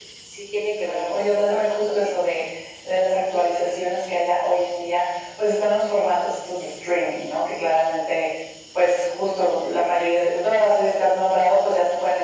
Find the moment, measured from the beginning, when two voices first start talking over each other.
0.8 s

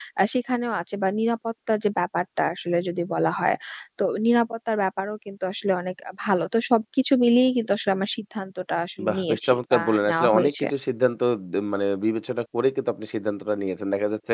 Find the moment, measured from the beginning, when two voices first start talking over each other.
9.0 s

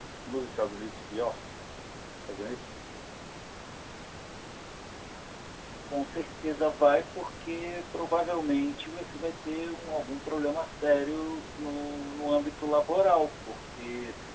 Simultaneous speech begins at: none

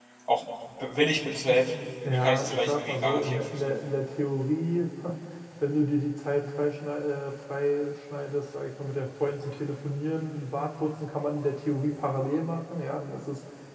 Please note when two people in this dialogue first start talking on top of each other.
2.0 s

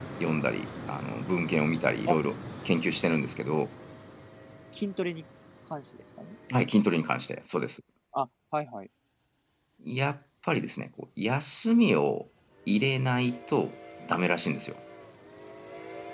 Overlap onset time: none

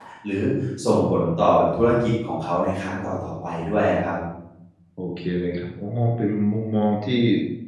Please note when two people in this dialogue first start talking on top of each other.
none

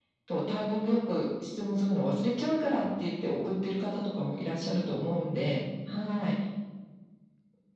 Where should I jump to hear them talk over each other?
none

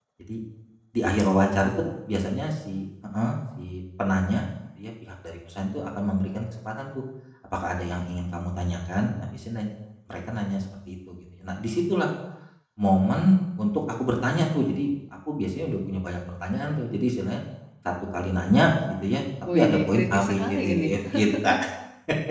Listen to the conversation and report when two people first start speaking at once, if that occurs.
19.4 s

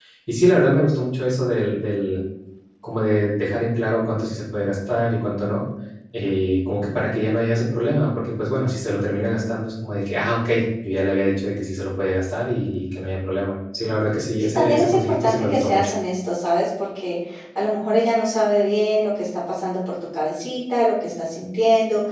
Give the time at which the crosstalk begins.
14.5 s

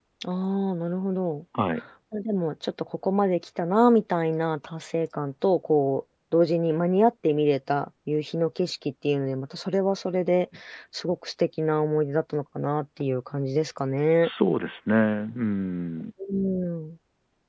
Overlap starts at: none

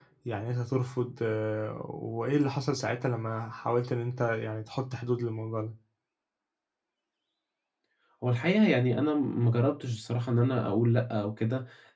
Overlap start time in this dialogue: none

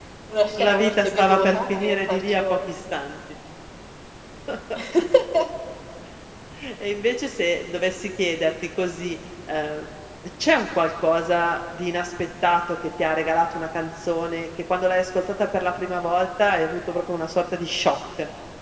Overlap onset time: 0.6 s

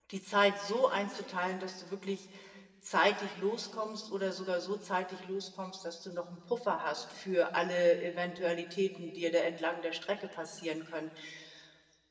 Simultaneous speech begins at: none

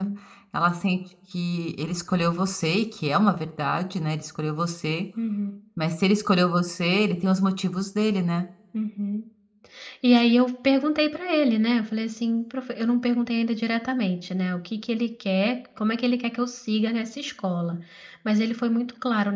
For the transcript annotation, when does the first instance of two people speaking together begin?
none

